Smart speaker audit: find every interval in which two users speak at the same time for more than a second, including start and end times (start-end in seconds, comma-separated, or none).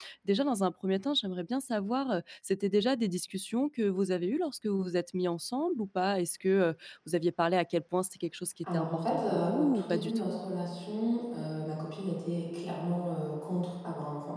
8.7-10.3